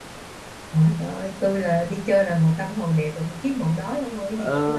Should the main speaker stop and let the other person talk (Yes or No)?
Yes